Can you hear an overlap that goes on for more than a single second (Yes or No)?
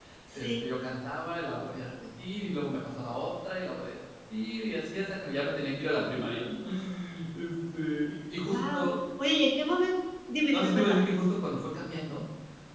No